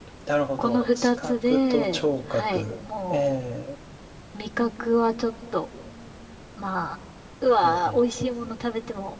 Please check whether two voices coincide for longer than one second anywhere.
Yes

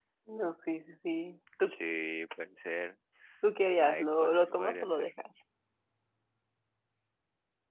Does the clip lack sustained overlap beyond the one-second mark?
No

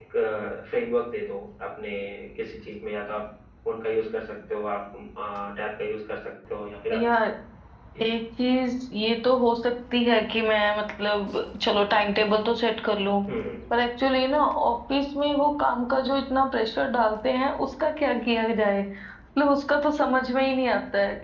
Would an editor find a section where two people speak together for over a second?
No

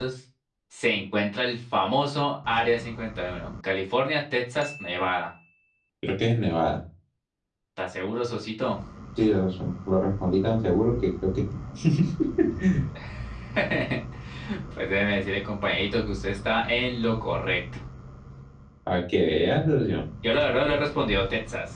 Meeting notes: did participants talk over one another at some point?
No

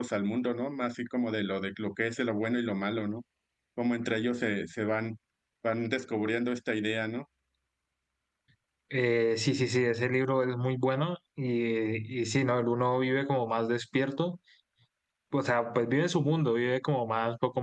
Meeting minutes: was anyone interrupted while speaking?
No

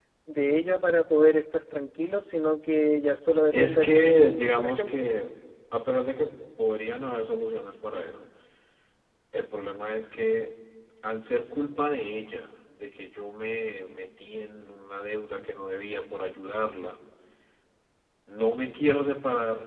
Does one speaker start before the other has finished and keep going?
Yes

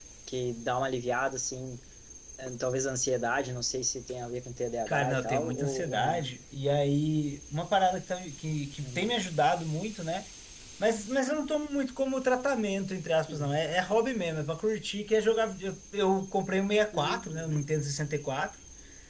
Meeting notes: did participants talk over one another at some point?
Yes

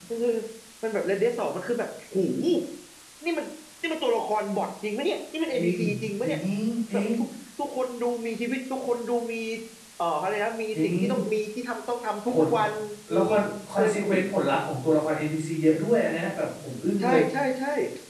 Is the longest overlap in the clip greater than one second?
No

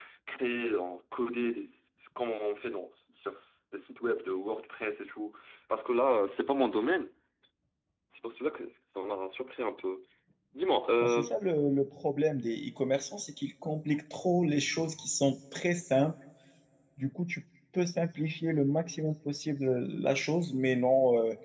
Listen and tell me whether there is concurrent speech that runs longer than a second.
No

